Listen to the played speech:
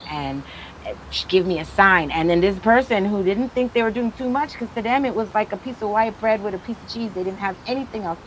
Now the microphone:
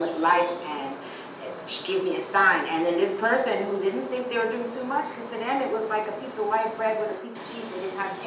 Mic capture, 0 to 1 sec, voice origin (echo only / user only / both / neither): echo only